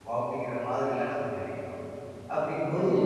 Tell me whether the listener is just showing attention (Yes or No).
Yes